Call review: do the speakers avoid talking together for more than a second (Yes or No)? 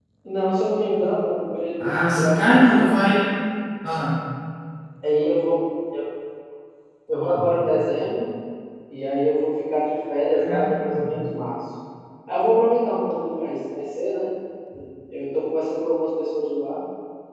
No